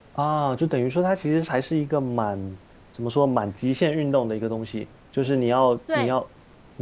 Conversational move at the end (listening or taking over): listening